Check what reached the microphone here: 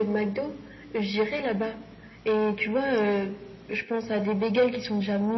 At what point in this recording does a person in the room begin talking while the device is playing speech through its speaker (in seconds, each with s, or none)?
none